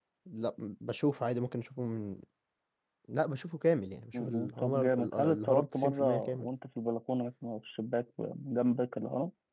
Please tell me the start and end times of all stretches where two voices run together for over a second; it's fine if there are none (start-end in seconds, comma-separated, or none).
4.1-6.5